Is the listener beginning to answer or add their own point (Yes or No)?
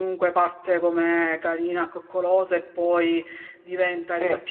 No